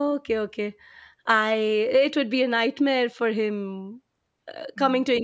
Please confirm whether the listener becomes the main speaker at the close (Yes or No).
No